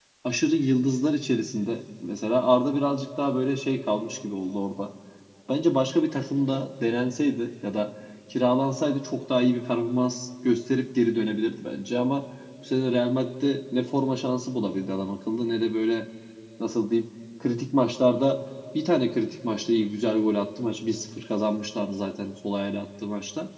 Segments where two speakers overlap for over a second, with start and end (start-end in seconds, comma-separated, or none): none